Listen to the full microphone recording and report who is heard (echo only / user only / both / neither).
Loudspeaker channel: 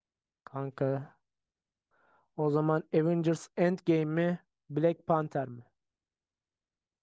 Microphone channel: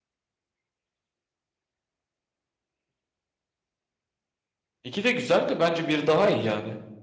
user only